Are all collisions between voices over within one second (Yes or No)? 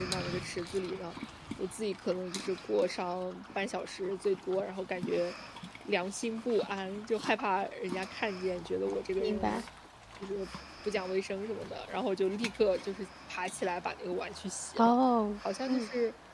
Yes